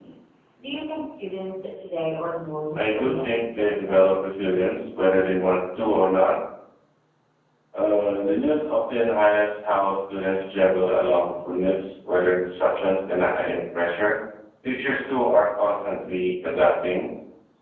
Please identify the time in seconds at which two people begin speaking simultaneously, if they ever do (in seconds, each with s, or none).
2.8 s